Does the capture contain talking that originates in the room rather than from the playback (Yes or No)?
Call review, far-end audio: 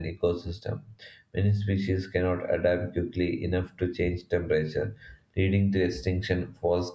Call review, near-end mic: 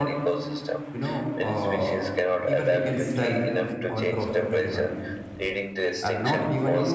Yes